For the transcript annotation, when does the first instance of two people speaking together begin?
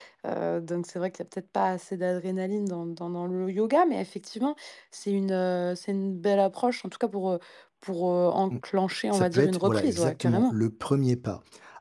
9.1 s

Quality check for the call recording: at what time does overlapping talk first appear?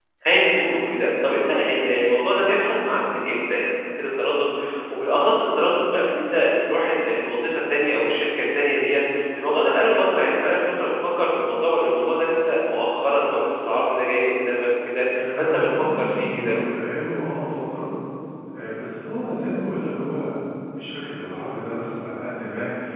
15.1 s

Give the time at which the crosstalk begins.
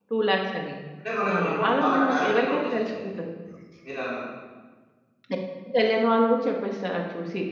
1.3 s

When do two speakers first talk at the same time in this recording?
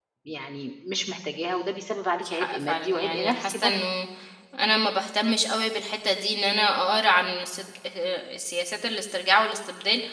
2.2 s

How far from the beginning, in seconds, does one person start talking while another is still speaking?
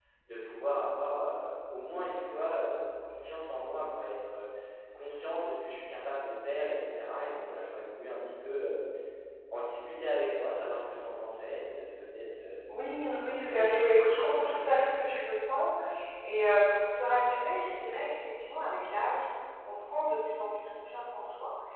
12.7 s

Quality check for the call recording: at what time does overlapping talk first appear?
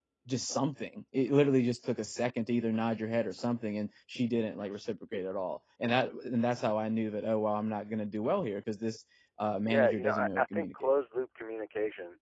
9.6 s

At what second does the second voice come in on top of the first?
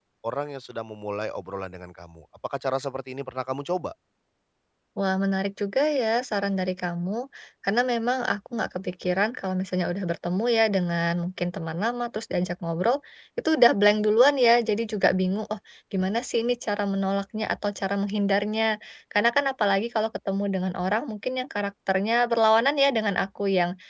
none

